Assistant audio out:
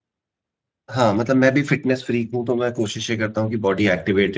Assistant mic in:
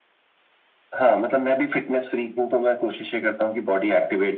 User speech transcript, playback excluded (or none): none